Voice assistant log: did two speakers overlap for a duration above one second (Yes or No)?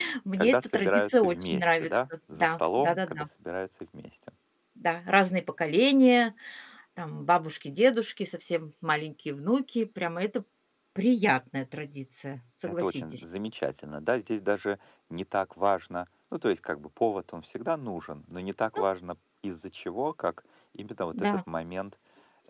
Yes